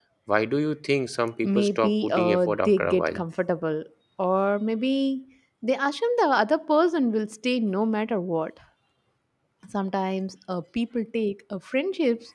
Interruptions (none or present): present